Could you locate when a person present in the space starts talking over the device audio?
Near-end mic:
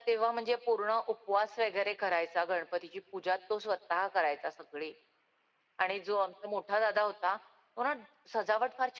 none

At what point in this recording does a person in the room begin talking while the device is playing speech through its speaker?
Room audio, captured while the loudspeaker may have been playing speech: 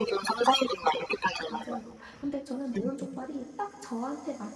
1 s

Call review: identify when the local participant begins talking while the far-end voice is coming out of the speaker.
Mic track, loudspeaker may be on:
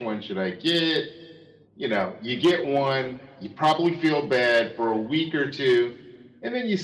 none

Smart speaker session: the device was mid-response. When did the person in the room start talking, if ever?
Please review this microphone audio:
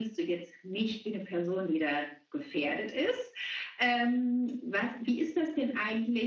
none

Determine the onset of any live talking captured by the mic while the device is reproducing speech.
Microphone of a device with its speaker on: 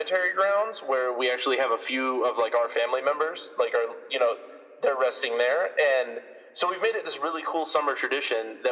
none

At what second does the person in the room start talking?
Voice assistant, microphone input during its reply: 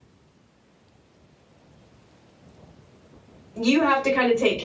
4 s

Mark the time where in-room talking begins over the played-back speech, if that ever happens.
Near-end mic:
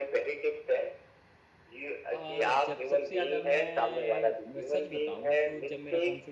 2 s

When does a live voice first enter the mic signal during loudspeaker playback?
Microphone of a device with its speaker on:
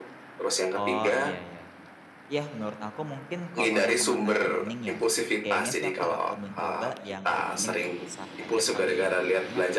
1 s

